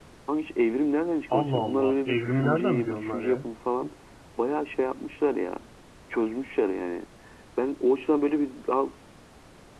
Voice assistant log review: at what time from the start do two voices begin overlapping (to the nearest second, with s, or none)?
1 s